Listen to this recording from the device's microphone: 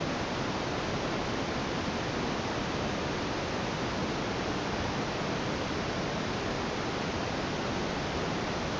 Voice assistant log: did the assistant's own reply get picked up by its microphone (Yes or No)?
No